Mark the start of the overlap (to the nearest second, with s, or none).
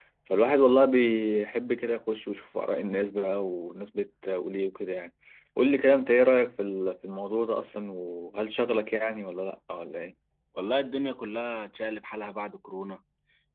none